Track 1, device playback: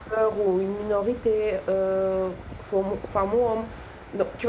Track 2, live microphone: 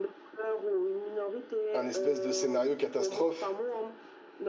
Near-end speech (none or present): present